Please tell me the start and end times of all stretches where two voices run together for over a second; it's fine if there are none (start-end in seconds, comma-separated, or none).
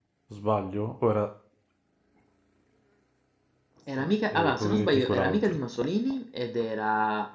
4.0-5.6